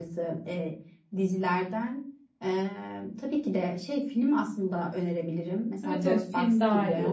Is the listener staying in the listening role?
No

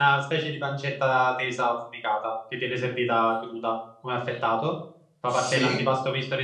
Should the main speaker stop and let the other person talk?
No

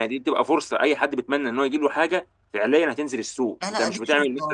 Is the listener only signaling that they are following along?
No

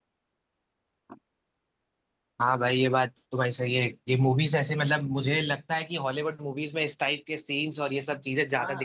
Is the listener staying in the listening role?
No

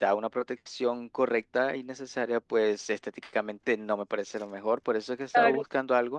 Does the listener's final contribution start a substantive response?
No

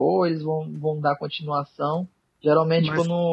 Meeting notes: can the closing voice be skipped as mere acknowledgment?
Yes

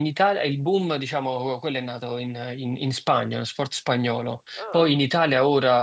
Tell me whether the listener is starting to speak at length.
No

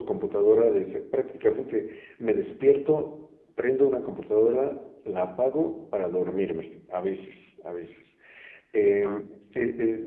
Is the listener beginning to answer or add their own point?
No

